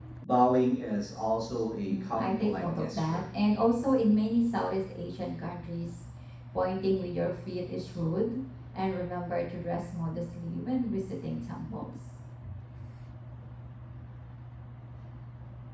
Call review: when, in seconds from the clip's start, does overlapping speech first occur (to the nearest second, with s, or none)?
2 s